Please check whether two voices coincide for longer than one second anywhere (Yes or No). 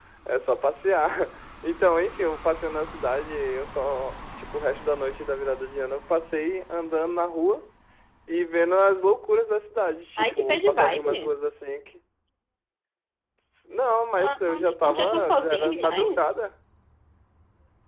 Yes